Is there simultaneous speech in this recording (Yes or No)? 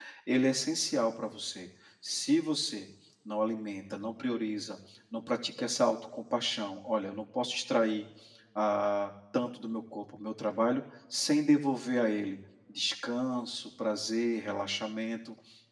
No